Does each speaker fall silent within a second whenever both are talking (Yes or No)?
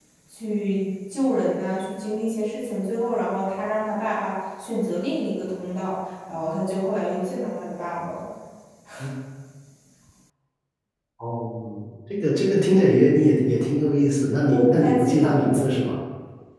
No